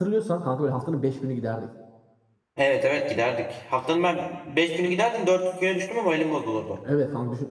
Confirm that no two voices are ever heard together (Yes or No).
Yes